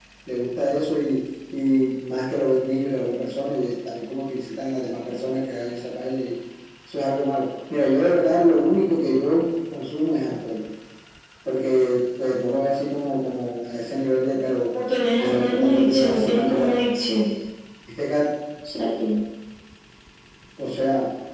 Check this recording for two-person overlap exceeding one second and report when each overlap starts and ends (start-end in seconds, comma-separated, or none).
15.2-16.7